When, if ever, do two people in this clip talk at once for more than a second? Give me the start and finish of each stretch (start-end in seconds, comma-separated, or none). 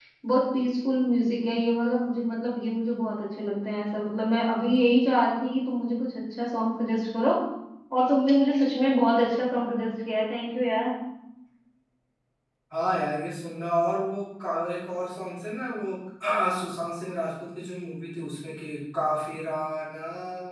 none